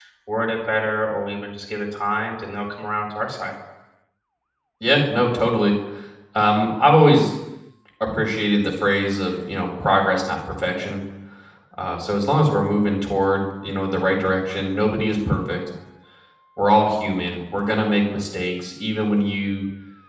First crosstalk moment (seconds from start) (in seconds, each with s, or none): none